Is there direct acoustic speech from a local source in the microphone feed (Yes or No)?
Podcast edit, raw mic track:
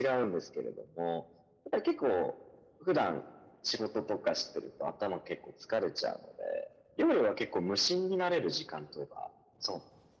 No